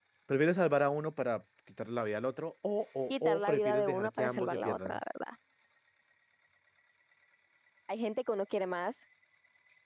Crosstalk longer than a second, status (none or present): present